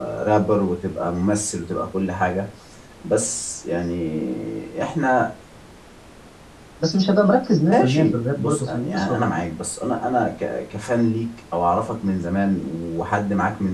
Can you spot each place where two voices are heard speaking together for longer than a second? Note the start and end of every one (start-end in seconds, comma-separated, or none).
7.7-9.2